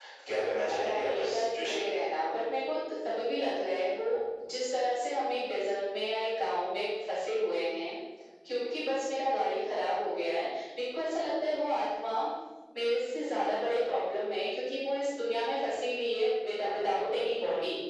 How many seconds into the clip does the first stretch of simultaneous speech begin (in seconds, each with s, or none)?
0.7 s